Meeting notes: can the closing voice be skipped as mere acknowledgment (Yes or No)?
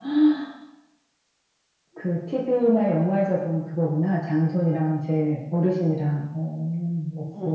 No